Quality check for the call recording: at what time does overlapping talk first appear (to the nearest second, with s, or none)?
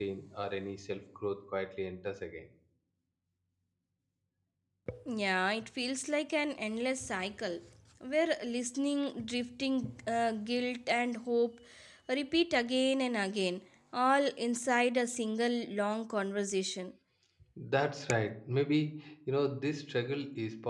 none